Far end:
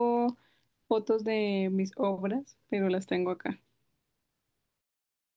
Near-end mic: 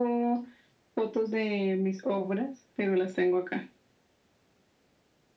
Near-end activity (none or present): none